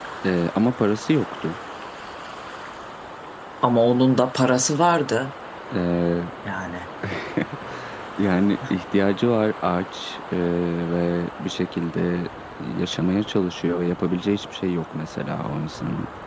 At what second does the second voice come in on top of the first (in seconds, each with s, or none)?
none